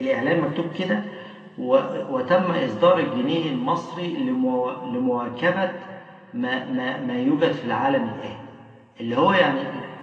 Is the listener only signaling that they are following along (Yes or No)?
Yes